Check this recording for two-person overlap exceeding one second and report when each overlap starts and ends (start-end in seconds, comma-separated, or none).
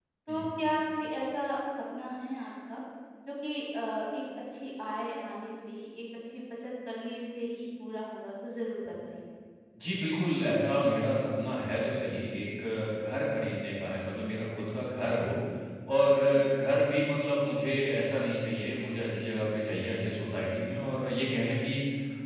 none